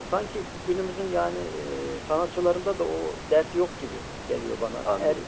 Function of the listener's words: listening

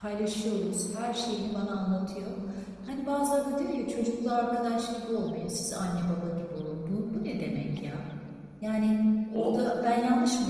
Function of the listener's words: listening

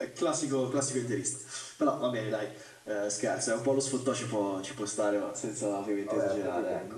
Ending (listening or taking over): taking over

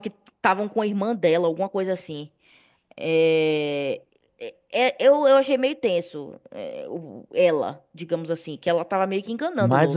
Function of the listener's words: taking over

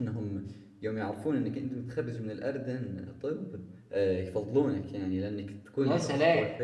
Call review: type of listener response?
listening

